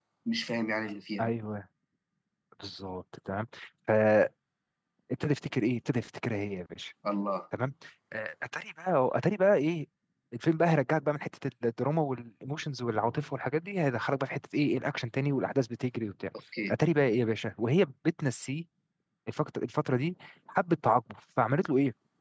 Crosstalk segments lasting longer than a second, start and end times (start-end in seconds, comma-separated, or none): none